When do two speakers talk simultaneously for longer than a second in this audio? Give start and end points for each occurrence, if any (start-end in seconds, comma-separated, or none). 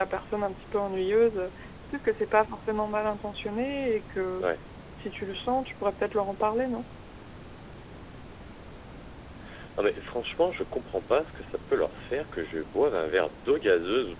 none